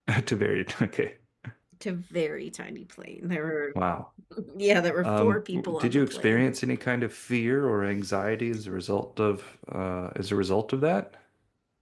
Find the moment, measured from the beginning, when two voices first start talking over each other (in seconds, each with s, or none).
5.0 s